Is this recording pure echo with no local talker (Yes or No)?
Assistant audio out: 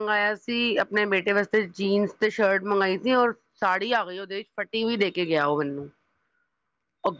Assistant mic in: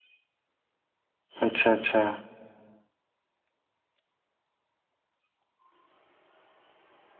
No